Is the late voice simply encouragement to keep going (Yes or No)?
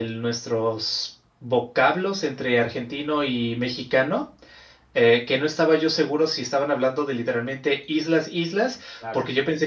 Yes